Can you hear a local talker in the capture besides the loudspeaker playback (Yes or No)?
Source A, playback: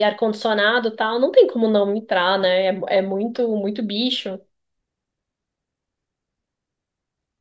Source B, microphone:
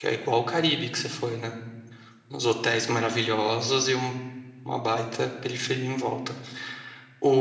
Yes